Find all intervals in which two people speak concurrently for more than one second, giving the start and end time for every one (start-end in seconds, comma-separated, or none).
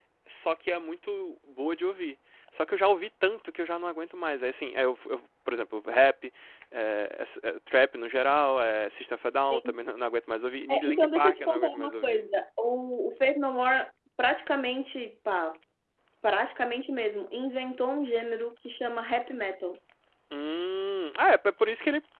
10.7-12.2